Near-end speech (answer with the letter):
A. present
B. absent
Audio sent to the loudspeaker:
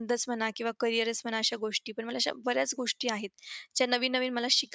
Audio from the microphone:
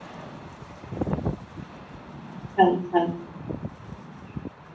A